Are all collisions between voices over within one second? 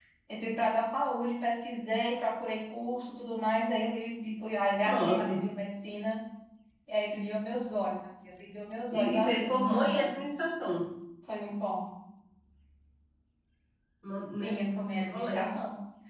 No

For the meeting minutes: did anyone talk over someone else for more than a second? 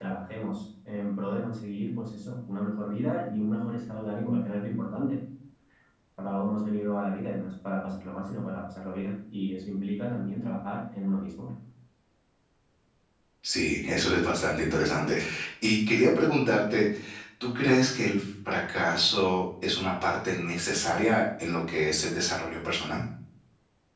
No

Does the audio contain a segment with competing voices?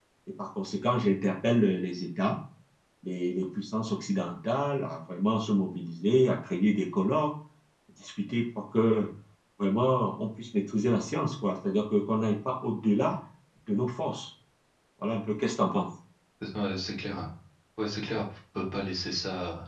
No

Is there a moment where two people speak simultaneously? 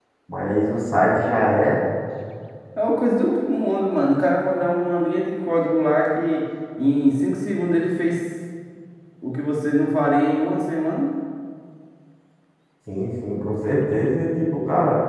No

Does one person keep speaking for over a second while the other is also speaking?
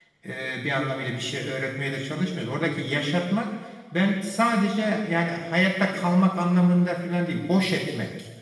No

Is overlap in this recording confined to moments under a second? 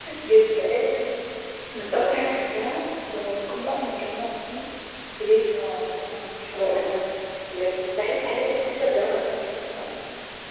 Yes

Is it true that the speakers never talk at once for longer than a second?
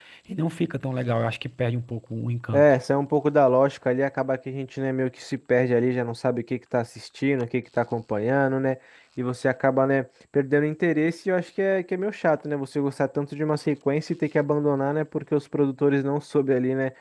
Yes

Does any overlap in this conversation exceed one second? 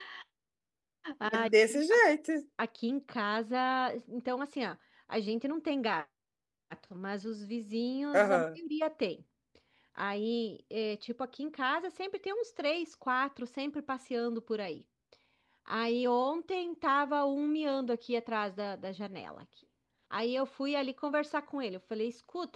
No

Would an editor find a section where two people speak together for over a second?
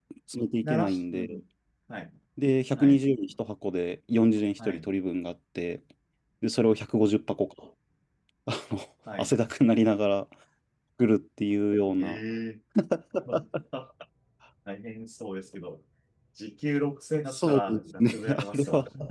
Yes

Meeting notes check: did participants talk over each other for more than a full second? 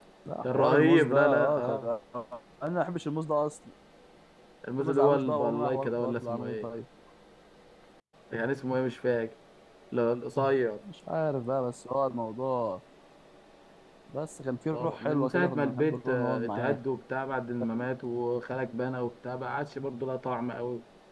Yes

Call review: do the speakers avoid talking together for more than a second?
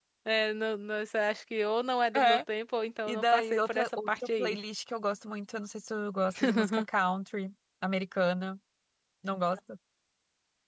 No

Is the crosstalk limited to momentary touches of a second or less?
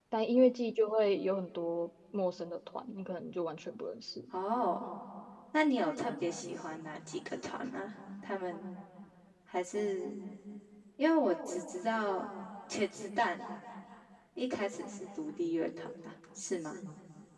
Yes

